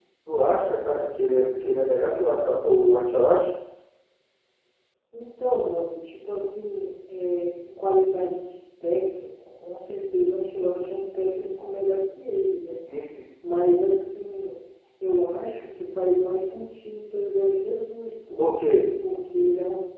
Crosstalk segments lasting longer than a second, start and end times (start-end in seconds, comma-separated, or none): none